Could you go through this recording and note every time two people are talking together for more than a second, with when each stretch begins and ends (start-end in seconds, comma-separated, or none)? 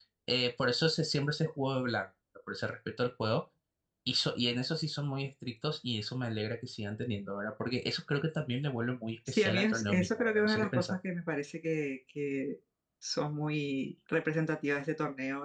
9.3-11.0